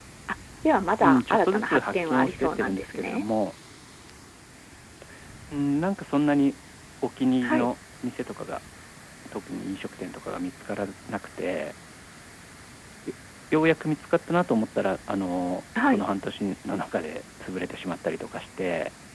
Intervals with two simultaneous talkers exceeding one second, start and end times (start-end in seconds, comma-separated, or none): 1.0-3.2